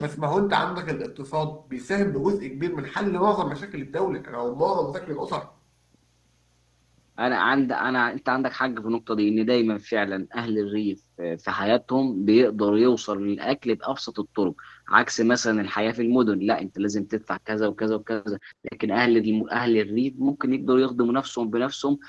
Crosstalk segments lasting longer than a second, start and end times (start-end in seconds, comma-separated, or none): none